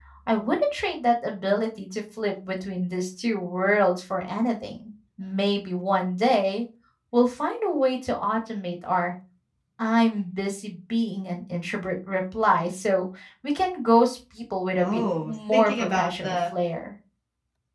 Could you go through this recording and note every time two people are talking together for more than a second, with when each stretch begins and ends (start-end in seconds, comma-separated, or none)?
14.8-16.4